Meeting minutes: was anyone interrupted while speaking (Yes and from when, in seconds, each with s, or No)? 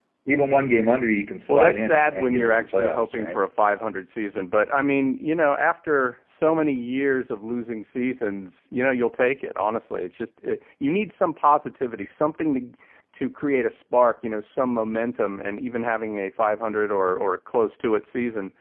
Yes, from 1.5 s